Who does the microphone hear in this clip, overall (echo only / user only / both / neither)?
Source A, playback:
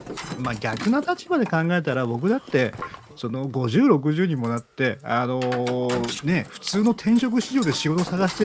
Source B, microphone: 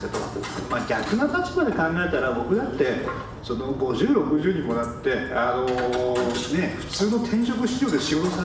echo only